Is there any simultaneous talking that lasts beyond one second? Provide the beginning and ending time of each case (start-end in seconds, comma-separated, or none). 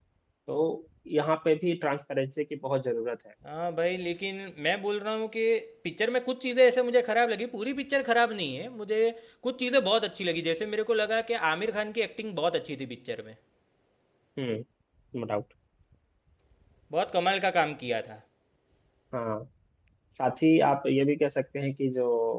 none